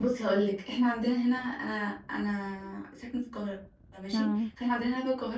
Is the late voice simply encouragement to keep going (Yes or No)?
Yes